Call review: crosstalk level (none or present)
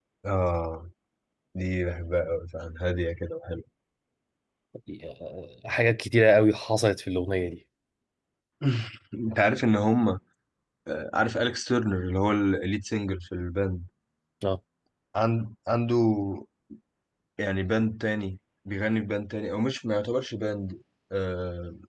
none